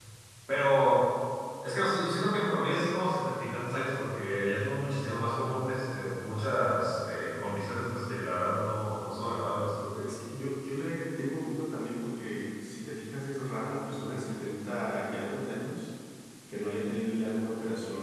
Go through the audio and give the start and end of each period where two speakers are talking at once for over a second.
none

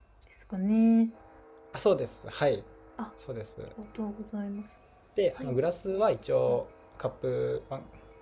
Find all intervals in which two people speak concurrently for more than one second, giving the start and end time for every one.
none

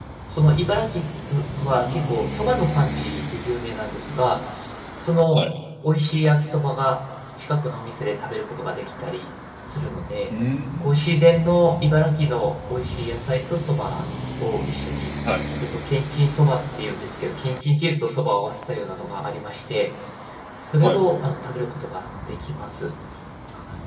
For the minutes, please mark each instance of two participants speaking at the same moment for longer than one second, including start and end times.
none

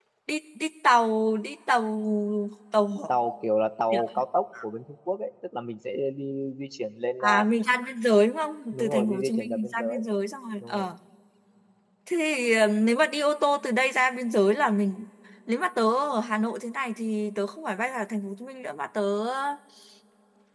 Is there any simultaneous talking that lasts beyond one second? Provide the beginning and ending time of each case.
8.7-10.0

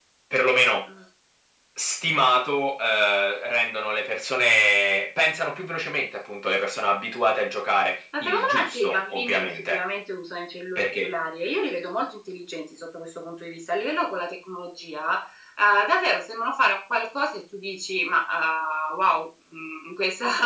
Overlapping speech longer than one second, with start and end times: 8.2-9.8

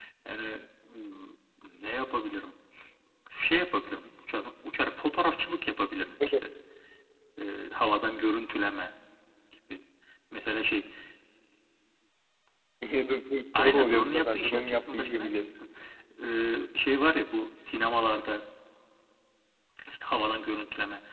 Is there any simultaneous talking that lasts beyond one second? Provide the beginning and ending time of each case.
13.6-15.5

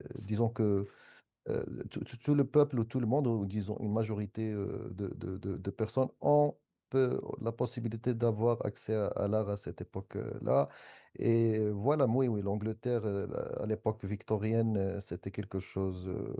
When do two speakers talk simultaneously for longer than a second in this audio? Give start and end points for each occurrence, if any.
none

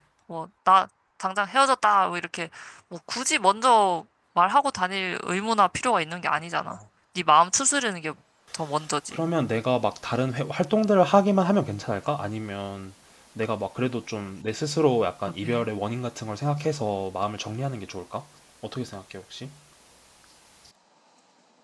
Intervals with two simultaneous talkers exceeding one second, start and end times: none

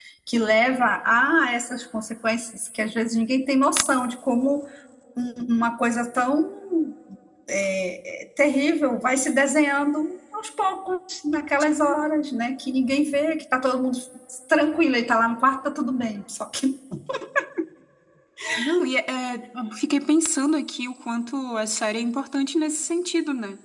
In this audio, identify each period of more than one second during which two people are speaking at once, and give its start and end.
none

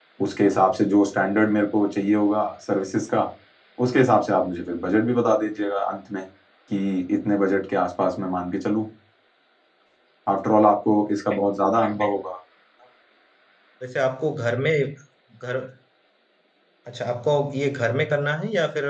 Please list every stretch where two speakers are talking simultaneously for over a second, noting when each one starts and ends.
none

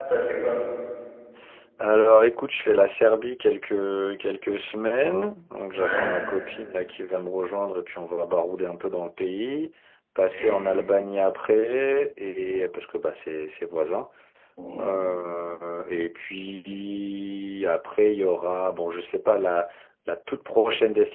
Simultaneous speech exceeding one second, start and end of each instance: none

